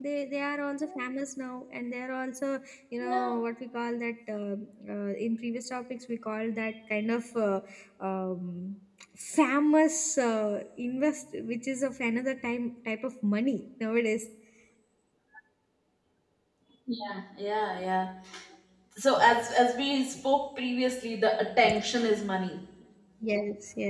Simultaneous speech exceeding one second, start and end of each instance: none

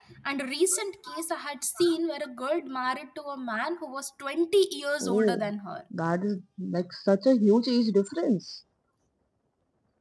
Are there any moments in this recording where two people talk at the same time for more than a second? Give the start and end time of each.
none

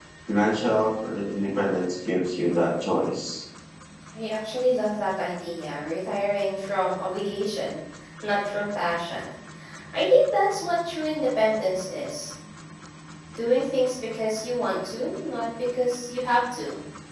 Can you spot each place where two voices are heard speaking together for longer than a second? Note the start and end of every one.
none

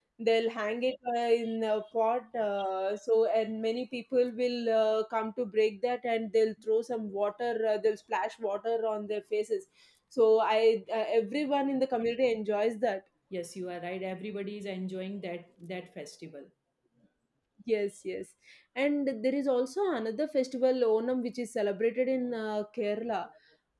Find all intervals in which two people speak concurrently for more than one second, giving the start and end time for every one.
none

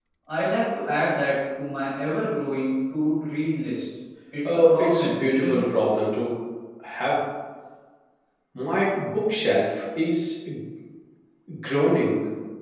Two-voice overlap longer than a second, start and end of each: 4.4-5.7

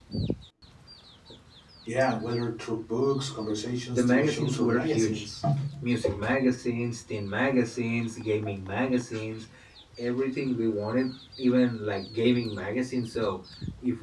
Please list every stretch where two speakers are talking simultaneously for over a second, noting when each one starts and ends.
3.9-5.2

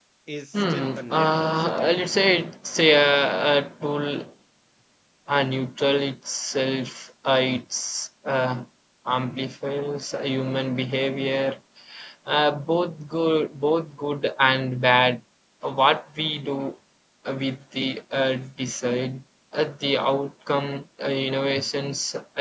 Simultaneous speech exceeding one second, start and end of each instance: 0.5-1.9

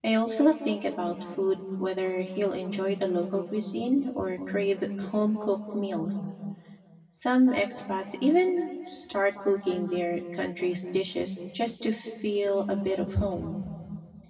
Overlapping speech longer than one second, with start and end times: none

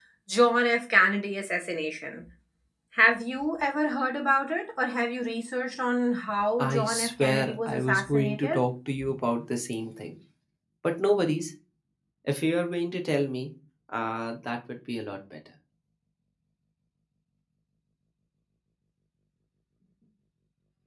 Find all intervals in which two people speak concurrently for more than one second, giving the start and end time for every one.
6.6-8.6

